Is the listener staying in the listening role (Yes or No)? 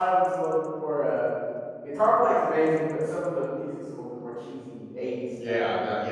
No